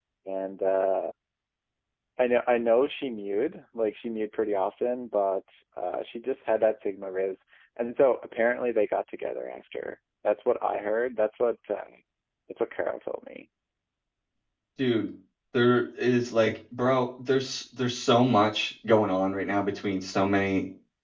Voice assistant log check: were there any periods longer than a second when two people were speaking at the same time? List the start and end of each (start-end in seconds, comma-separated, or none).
none